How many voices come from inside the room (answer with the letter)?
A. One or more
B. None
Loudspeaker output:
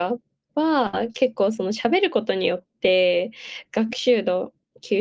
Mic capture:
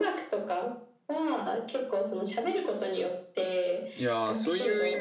A